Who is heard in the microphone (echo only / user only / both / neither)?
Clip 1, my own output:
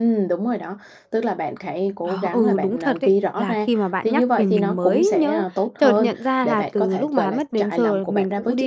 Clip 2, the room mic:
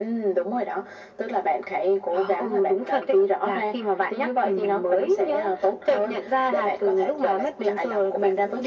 echo only